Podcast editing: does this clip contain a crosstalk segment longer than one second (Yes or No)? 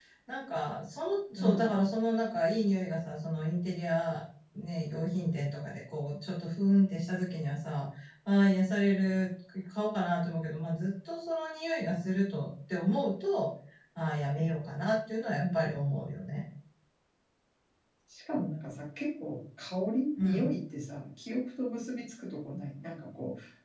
No